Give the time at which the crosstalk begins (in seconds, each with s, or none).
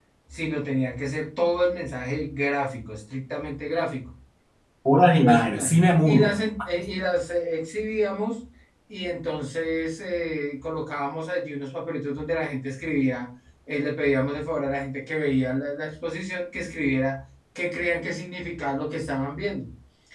5.1 s